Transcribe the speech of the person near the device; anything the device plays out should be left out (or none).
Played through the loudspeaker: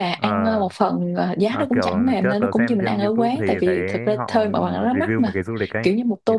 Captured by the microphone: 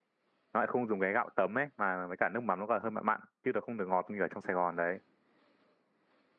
nó lại không dùng cái gạo tấm ấy mà với cả nước mắm nó còn hơi mặn mặn chứ nó không được ngọt như ở trong Sài Gòn đấy